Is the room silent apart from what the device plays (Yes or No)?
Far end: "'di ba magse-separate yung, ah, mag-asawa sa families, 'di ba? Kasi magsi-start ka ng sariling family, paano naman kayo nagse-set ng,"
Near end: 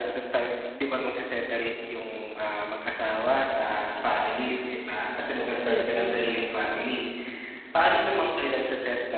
No